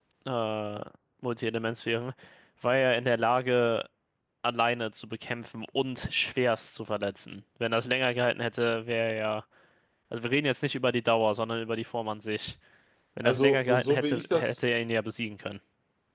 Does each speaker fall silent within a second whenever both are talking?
No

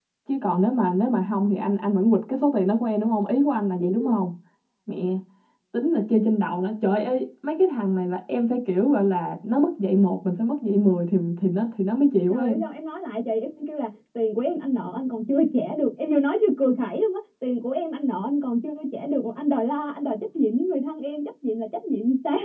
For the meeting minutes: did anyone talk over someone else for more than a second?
No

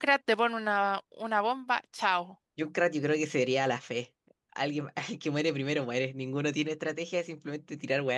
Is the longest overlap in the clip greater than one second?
No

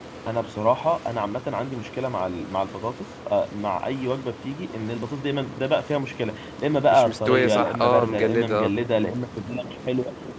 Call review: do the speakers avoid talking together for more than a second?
No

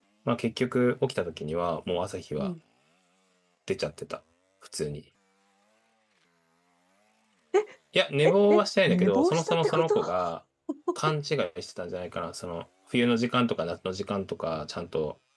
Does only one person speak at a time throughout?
No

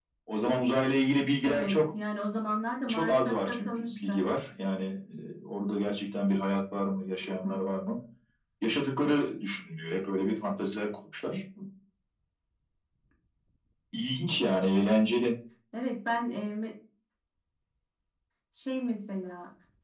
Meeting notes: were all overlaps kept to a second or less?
No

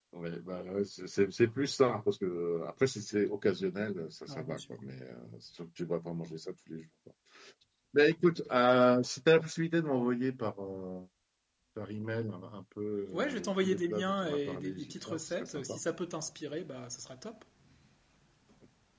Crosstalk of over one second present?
Yes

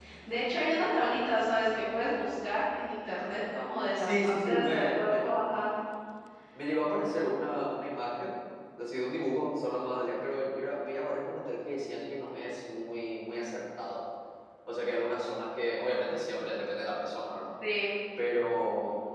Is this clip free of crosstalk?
No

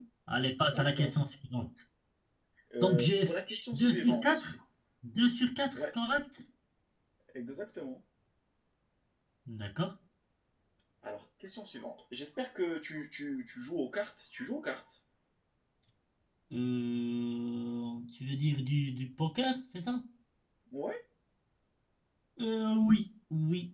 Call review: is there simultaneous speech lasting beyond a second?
Yes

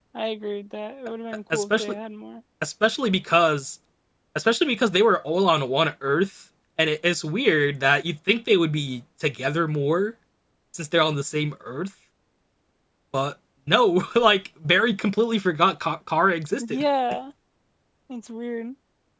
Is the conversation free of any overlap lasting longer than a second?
Yes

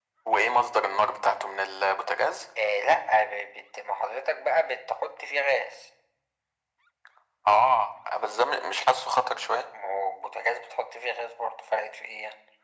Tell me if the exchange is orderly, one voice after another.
Yes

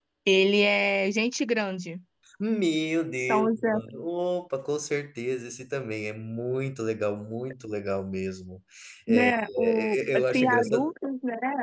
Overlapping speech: Yes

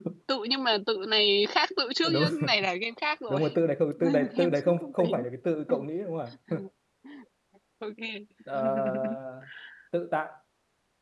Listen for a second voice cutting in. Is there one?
Yes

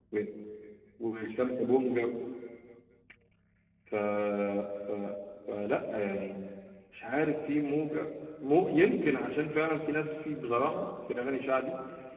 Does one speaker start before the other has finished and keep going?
No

